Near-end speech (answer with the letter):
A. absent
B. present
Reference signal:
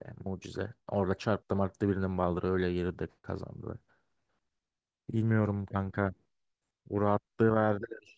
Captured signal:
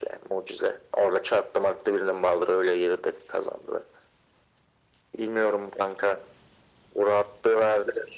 A